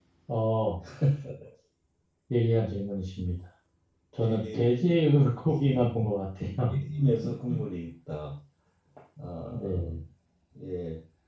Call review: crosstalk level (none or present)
present